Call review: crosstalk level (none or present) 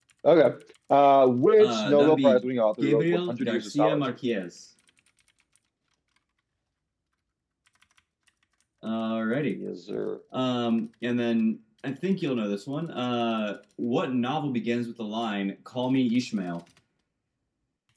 present